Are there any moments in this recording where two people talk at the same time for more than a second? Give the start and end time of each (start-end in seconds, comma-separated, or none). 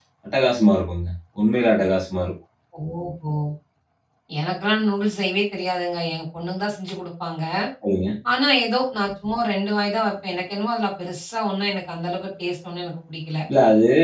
none